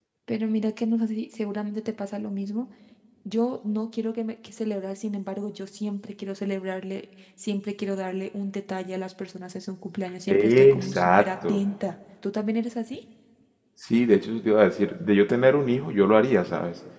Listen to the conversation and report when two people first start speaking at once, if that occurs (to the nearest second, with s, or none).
10 s